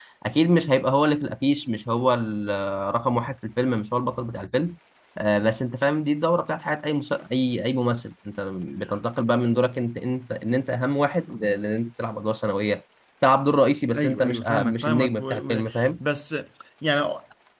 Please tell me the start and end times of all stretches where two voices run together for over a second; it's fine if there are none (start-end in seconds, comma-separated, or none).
14.0-15.6